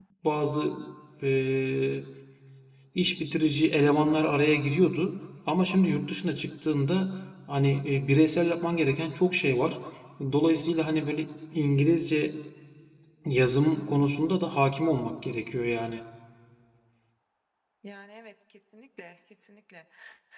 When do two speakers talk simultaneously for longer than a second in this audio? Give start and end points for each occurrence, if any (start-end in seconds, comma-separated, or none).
none